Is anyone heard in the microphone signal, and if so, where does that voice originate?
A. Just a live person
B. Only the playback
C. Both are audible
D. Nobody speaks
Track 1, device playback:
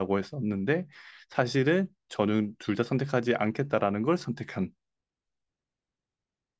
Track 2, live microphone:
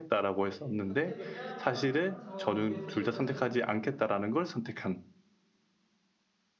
C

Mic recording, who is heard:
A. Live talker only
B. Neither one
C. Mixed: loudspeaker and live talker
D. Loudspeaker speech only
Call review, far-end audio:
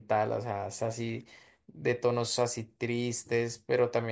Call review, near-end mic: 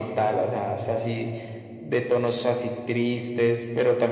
D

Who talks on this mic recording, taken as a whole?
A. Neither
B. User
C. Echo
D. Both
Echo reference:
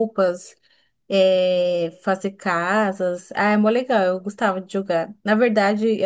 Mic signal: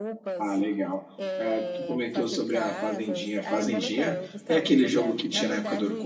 D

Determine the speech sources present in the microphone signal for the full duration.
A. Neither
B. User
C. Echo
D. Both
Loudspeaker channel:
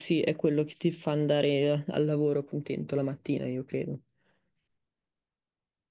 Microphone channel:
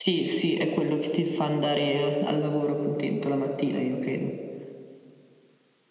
C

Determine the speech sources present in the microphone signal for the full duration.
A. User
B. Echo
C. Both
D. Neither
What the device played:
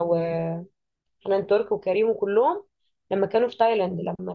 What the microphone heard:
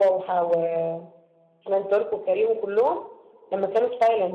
B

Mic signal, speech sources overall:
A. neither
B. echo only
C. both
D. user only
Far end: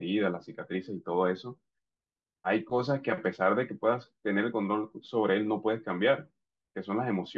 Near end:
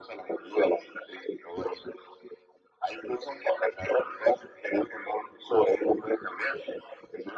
B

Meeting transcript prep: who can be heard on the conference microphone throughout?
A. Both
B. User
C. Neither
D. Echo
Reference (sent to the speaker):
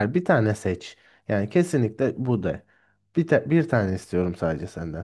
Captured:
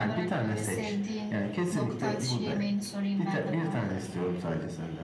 A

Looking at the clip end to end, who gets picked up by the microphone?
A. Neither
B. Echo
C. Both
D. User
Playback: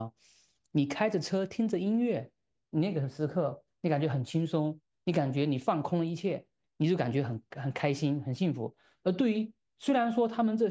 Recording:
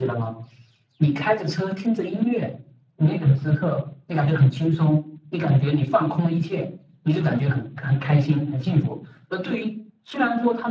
B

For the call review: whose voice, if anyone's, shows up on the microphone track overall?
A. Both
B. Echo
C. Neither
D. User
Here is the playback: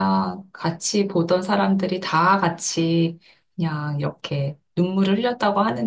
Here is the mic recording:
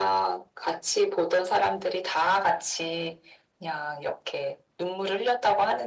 B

